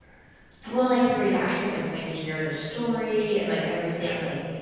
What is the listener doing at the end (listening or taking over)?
listening